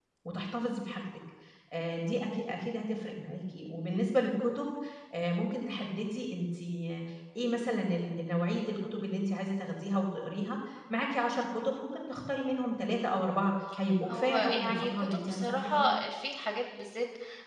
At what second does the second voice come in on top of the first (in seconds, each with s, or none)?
14.1 s